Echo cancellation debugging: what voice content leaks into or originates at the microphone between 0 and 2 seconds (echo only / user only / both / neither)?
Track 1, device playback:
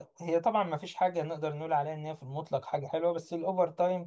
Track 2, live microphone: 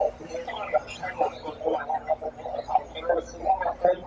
echo only